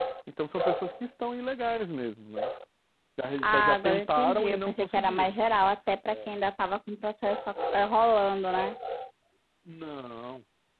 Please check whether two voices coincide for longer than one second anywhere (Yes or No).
Yes